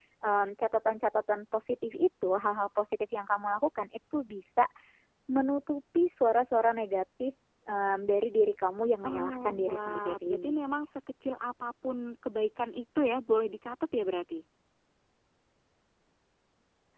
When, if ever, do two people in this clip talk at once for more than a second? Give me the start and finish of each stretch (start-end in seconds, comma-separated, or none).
9.1-10.8